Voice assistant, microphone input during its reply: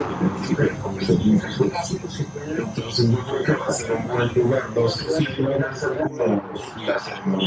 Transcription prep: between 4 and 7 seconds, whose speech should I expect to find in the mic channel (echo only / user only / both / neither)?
echo only